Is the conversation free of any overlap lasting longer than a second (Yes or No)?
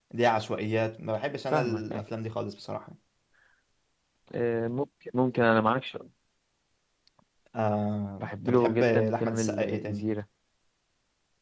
No